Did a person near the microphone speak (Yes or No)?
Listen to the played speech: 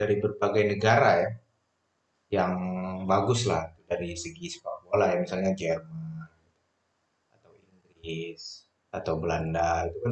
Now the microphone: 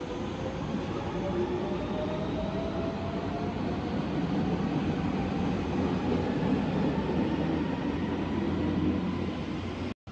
No